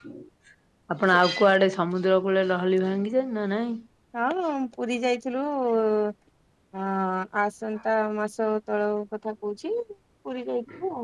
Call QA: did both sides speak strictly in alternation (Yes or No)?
Yes